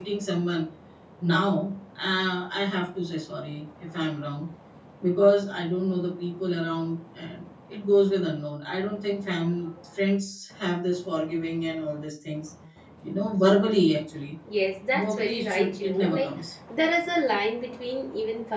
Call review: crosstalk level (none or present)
present